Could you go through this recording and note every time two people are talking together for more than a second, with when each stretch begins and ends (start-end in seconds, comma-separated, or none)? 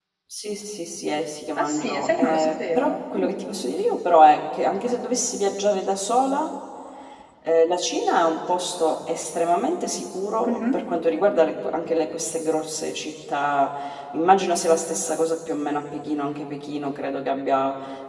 1.6-3.3